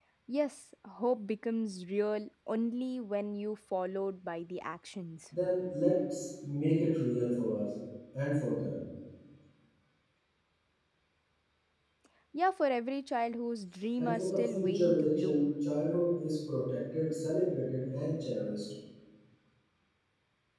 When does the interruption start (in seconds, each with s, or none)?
14.0 s